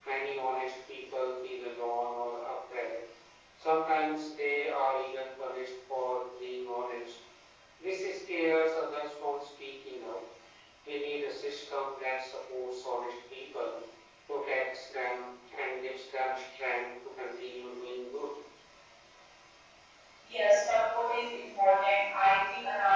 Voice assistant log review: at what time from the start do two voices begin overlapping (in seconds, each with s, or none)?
none